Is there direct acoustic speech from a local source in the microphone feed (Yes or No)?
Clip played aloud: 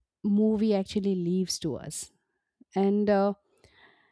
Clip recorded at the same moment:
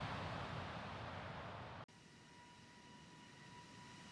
No